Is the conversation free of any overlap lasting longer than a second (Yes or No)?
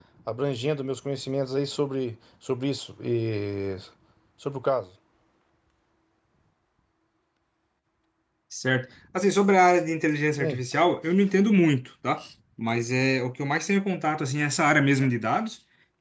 Yes